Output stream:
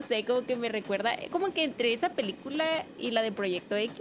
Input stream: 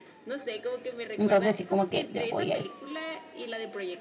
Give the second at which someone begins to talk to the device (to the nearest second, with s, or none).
1 s